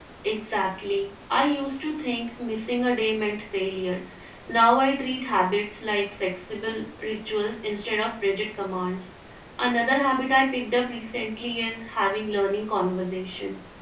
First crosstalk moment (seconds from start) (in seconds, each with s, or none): none